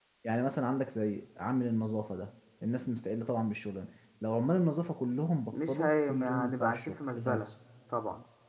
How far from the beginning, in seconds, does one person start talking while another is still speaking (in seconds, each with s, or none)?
5.5 s